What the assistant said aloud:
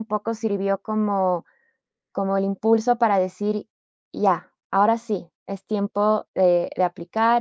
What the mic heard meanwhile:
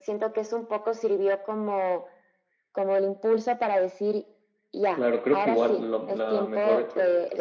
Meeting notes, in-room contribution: present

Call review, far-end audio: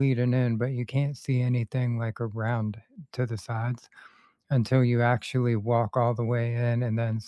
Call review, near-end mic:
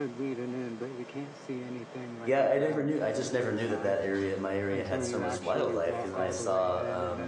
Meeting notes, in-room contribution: present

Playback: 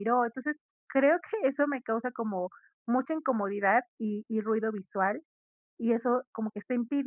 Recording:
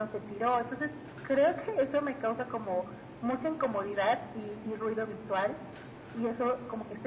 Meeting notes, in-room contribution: none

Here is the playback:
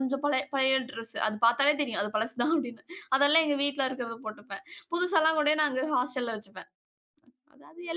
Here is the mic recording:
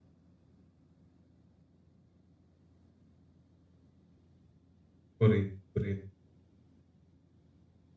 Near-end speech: present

